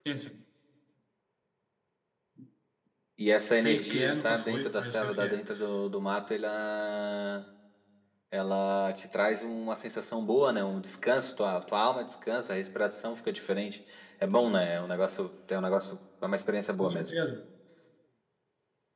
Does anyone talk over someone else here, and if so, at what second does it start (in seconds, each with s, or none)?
3.5 s